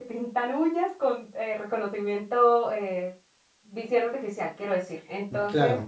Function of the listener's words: listening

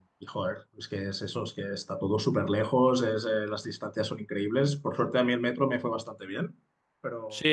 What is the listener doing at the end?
taking over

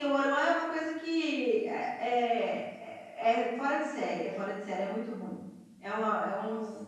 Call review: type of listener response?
listening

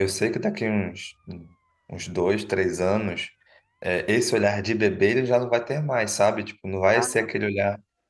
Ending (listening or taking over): listening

